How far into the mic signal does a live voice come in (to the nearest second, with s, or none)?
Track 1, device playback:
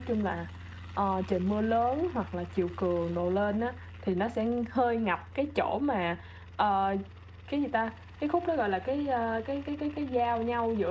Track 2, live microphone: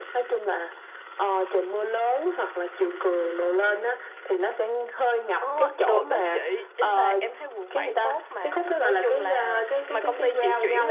5 s